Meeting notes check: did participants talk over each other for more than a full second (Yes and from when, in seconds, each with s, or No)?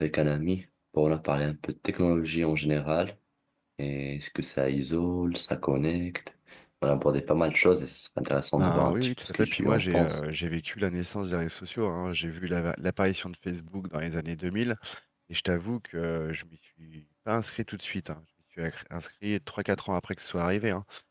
Yes, from 8.6 s